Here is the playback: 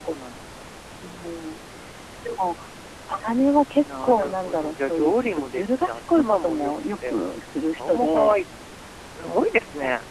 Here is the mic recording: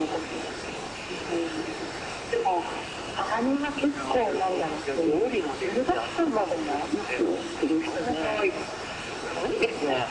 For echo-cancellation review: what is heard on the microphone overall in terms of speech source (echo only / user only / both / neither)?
echo only